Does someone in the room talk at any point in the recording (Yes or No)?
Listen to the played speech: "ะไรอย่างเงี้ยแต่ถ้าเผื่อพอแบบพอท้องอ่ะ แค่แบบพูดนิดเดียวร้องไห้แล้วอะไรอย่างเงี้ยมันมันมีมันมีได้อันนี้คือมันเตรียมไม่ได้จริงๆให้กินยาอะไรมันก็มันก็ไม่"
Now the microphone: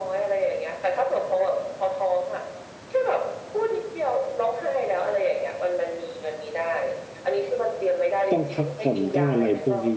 Yes